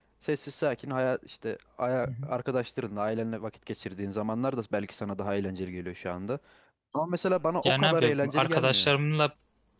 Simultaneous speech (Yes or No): Yes